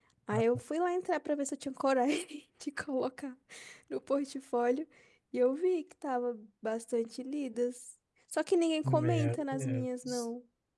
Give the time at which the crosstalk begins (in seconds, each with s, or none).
8.8 s